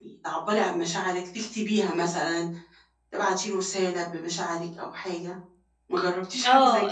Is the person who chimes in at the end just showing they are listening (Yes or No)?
No